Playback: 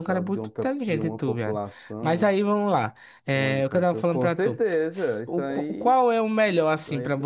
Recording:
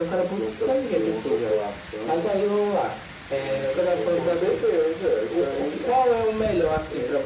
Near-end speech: none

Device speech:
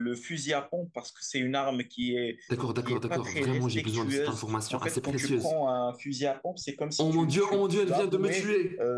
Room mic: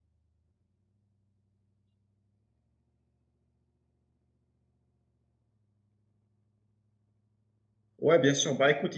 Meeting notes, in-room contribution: present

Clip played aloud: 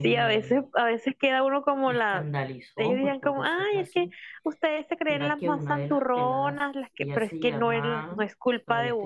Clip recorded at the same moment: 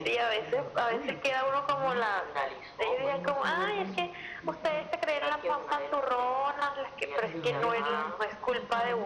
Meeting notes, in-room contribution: present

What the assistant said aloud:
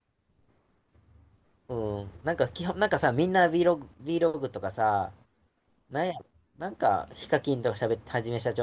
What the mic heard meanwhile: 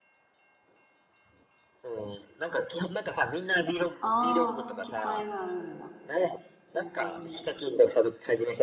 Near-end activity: present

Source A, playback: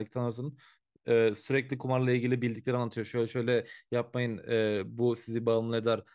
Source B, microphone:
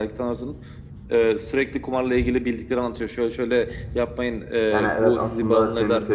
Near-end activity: present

